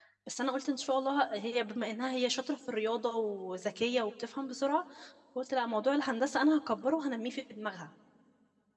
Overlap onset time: none

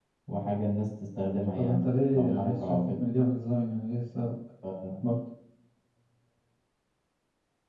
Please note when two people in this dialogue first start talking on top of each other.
1.6 s

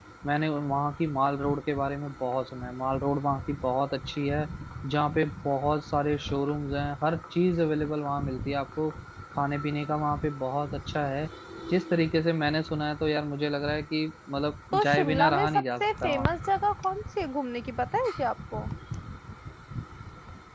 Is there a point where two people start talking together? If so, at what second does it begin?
14.7 s

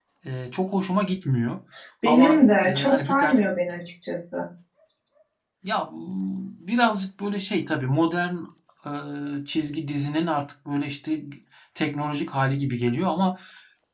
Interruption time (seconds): 2.0 s

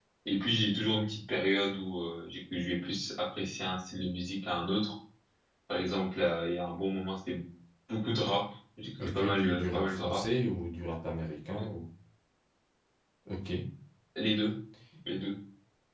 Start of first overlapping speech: 9.0 s

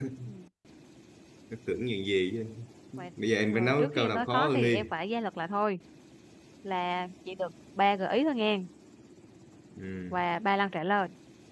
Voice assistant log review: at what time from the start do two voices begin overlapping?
3.5 s

